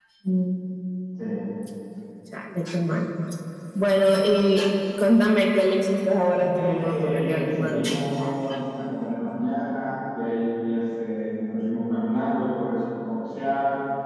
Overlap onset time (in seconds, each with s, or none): 6.3 s